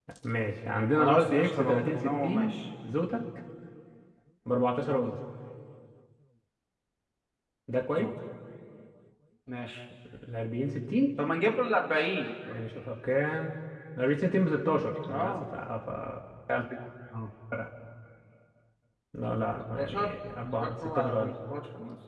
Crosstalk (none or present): present